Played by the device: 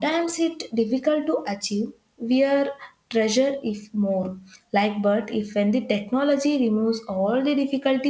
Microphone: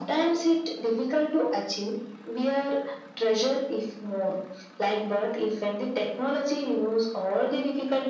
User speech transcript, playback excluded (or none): none